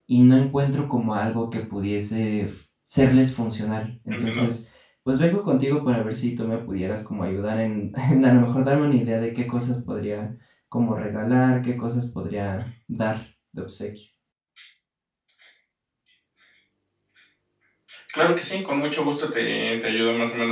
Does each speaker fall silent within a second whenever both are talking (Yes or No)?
Yes